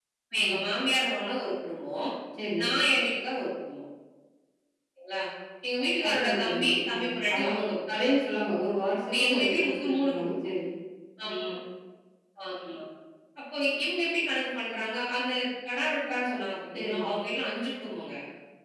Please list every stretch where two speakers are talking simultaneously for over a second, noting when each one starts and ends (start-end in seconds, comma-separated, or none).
6.1-8.1, 9.0-10.5